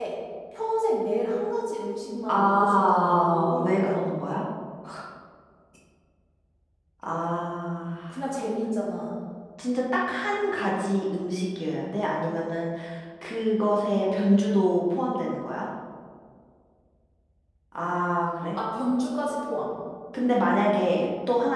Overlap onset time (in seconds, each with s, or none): 2.3 s